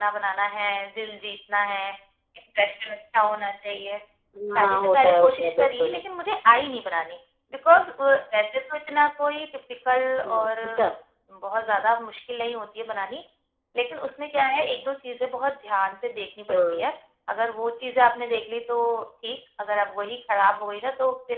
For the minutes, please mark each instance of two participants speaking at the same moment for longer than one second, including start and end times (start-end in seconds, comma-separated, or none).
4.6-6.0